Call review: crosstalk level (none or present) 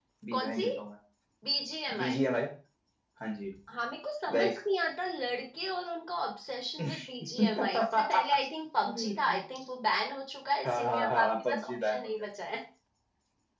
present